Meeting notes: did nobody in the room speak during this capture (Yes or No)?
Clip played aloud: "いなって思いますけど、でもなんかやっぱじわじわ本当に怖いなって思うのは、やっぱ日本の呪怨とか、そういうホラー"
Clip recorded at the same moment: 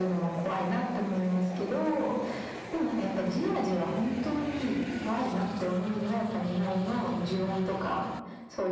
Yes